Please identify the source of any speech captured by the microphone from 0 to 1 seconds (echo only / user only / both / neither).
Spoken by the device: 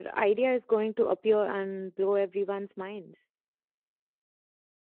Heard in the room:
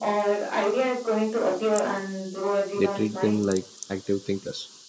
echo only